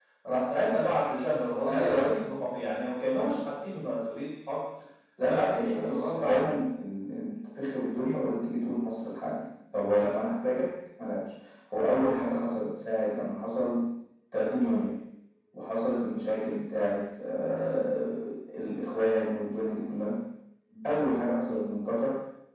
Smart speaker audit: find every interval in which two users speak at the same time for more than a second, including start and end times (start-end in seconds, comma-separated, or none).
5.3-6.5